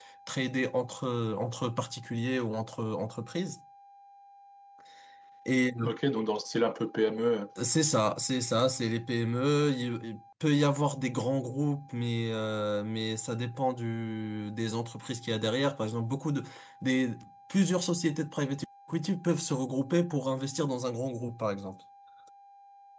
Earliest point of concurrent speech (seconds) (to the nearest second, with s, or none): none